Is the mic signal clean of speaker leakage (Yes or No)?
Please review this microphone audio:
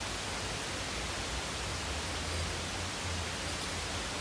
Yes